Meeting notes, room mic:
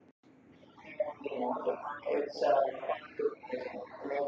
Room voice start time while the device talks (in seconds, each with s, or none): none